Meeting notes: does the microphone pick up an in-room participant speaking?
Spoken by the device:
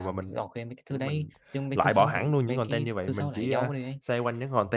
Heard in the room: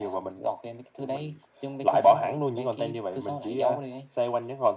No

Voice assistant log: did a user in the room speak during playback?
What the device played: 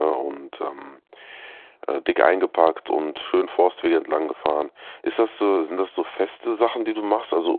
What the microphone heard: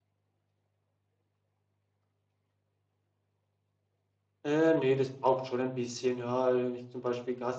Yes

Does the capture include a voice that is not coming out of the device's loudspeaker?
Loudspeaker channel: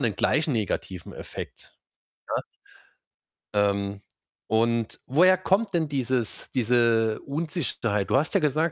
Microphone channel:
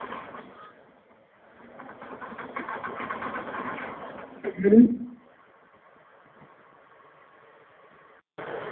Yes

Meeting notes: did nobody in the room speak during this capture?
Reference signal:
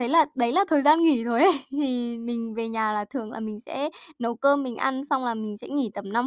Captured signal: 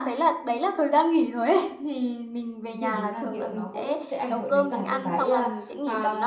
No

